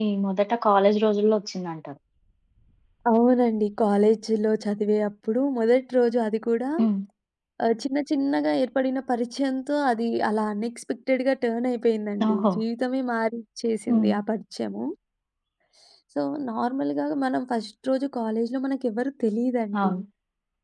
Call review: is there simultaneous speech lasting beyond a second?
No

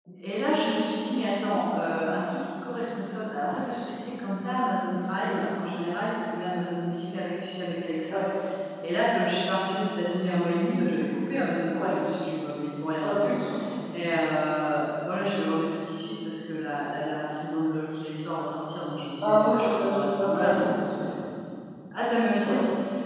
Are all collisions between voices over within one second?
No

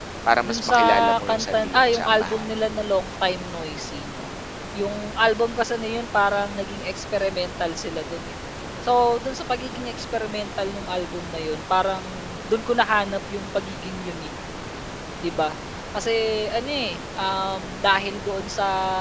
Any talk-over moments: Yes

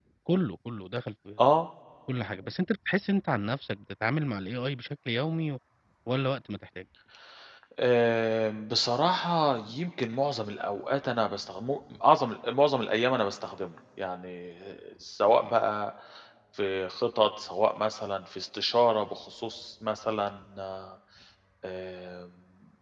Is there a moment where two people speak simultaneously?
No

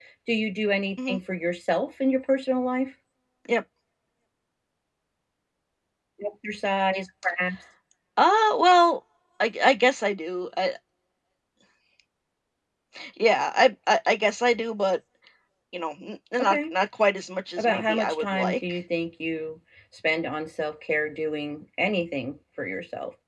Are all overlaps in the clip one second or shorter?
No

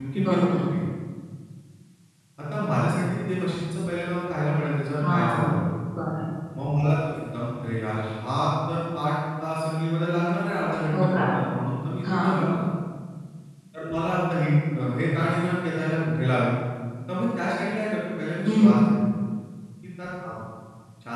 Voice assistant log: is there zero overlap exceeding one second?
Yes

